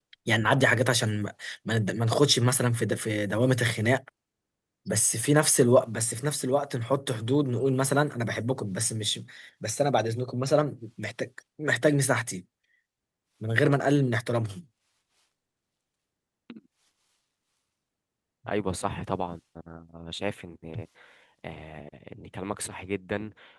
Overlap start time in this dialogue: none

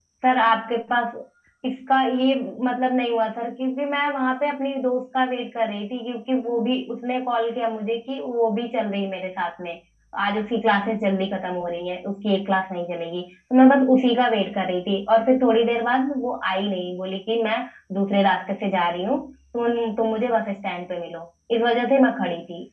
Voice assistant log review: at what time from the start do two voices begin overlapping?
none

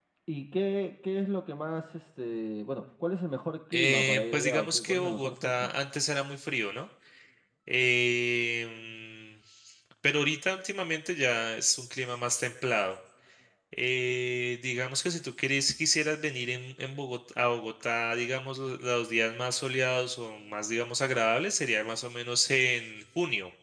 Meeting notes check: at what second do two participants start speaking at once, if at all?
3.7 s

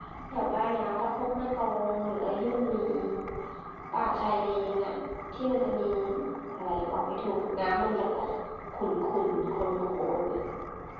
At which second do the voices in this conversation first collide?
none

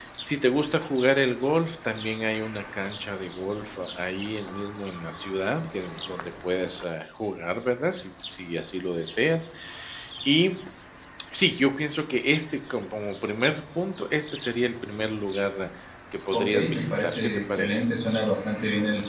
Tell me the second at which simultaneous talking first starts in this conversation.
16.3 s

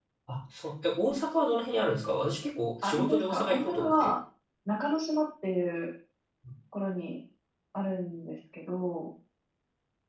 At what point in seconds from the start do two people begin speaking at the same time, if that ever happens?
2.8 s

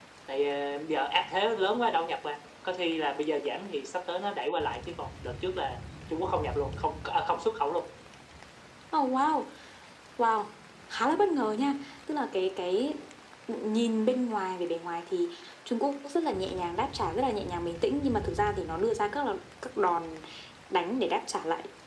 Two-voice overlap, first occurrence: none

